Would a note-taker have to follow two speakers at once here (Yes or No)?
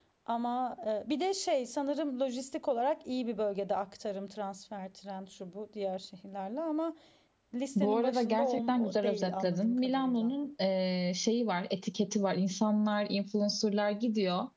Yes